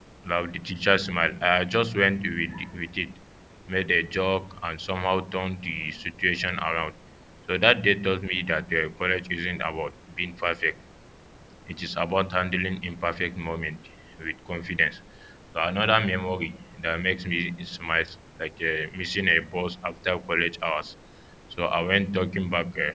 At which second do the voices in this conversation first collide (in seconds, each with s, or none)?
none